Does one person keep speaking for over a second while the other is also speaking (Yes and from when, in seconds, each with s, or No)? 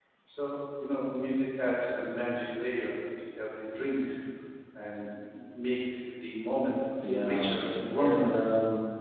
Yes, from 7.0 s